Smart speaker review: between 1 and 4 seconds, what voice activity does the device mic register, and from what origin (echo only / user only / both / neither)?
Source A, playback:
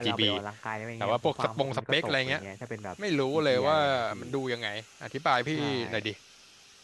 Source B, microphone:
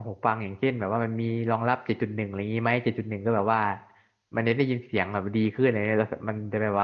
user only